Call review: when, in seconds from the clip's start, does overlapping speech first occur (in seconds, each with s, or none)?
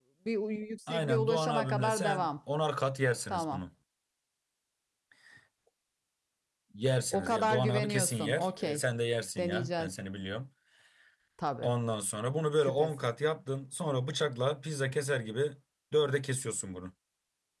0.9 s